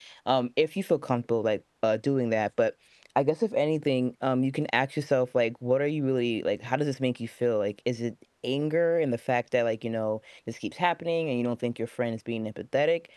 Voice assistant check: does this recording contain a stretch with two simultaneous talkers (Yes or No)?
No